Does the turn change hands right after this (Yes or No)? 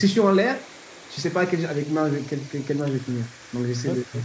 No